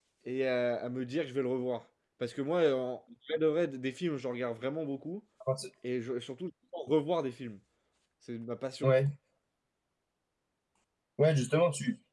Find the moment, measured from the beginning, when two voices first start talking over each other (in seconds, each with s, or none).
none